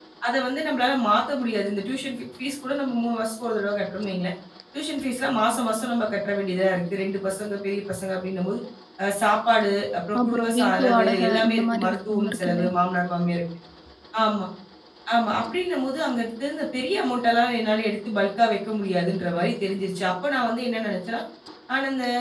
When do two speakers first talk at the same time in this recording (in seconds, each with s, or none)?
10.2 s